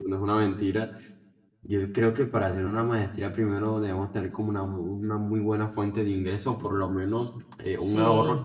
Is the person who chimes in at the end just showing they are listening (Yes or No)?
Yes